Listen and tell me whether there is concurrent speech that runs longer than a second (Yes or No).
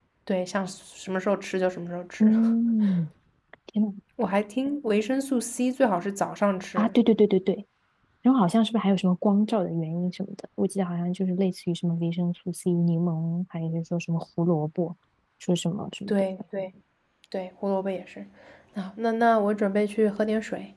No